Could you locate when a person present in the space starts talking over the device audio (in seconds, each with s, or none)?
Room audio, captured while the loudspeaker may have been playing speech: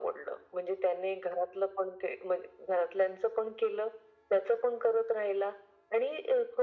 none